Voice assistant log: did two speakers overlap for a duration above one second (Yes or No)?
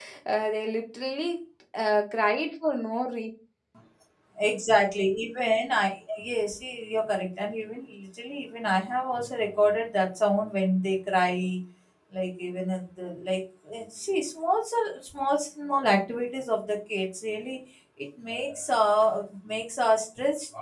No